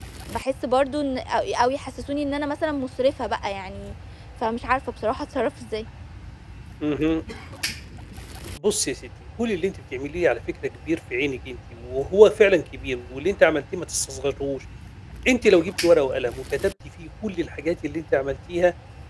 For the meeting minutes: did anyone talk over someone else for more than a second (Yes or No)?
No